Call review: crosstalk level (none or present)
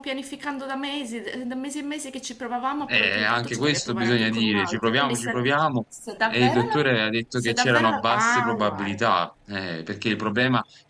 present